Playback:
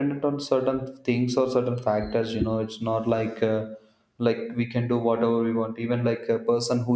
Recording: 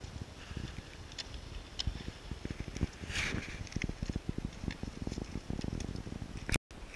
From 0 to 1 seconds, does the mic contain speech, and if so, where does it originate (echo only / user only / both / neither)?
neither